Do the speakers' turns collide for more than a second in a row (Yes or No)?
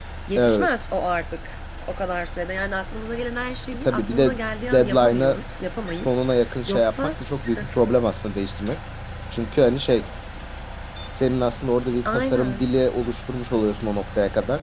Yes